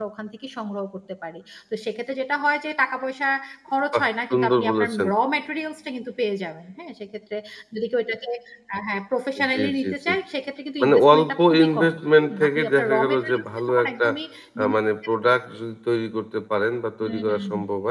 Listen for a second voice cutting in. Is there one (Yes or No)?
Yes